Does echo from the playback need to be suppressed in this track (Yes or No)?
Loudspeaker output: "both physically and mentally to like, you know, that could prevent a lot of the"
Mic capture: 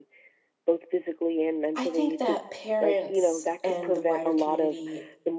Yes